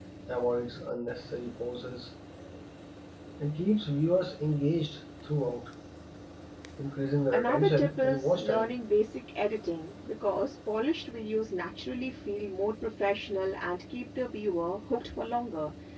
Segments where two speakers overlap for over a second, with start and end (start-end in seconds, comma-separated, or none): 7.3-8.7